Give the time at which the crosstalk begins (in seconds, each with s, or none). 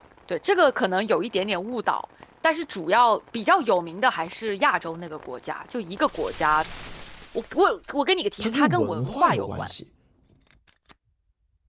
8.4 s